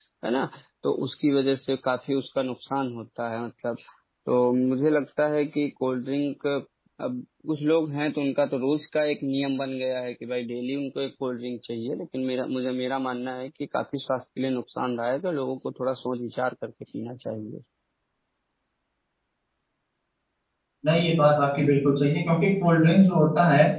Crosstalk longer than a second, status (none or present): none